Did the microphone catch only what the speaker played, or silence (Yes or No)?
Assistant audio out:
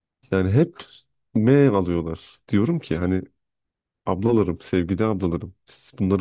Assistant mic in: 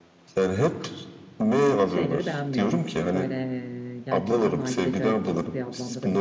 No